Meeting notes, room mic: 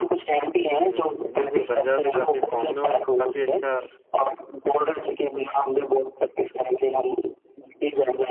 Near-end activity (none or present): present